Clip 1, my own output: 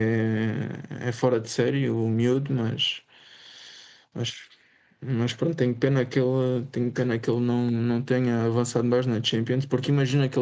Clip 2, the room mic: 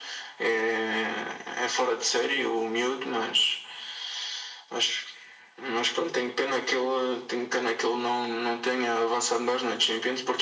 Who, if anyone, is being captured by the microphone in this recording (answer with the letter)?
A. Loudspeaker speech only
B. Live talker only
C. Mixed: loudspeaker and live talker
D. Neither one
A